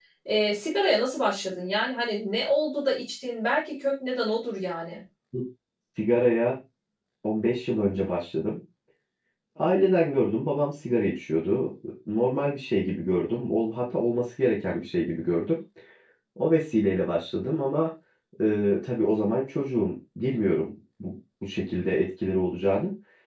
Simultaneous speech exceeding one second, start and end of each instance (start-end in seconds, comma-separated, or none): none